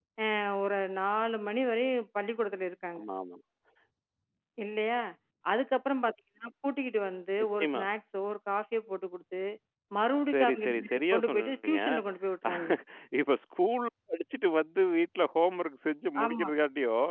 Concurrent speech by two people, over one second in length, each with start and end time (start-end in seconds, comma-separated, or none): 10.3-11.8